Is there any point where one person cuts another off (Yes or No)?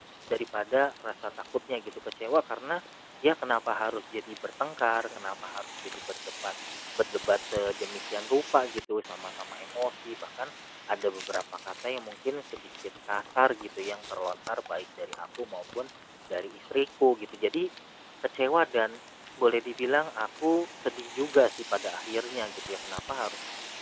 No